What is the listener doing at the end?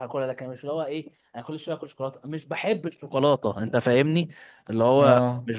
listening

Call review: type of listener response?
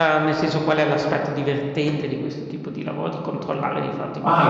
taking over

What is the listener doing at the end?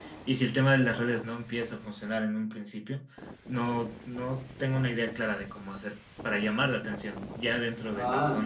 taking over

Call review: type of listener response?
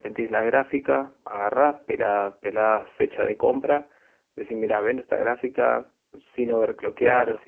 listening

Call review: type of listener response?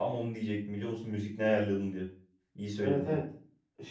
taking over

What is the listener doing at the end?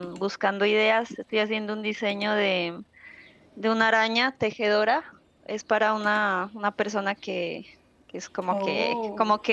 listening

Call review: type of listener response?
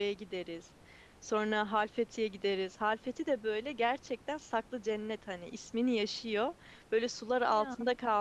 listening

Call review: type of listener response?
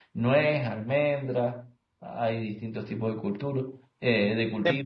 listening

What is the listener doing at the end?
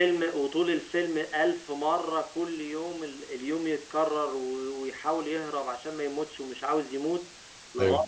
listening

